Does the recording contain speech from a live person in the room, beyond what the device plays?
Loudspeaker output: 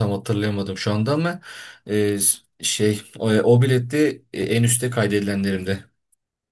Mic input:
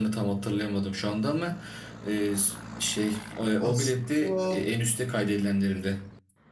Yes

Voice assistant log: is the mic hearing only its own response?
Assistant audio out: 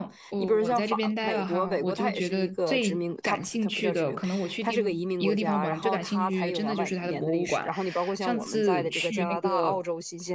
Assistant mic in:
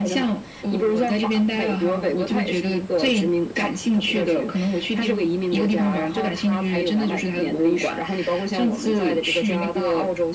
Yes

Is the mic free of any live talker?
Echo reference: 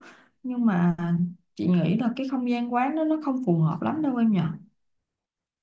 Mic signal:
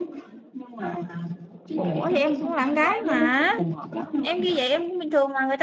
No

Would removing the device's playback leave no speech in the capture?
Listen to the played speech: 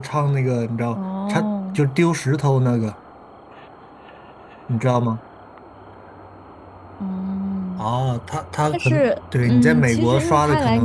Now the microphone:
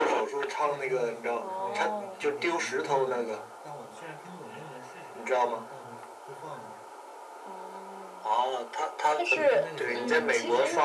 No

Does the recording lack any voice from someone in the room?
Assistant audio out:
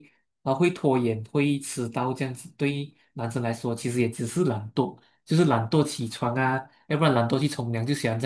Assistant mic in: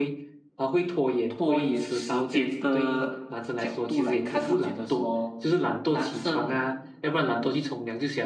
No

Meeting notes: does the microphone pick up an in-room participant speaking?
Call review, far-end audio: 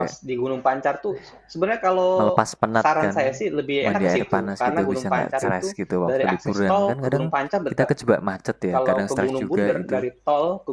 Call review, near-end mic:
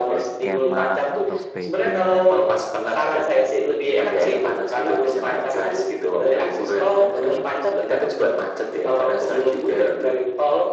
Yes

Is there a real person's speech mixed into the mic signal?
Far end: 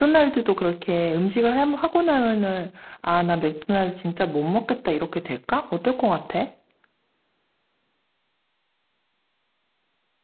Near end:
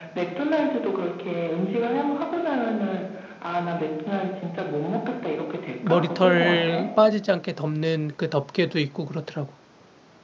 Yes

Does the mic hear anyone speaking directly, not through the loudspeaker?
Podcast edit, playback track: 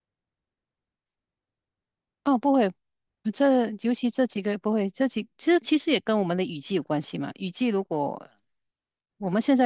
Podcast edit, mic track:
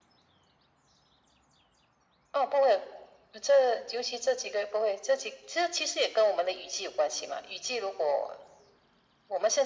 No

